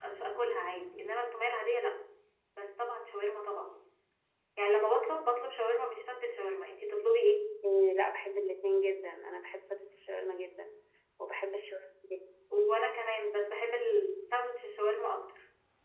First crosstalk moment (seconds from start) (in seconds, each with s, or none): none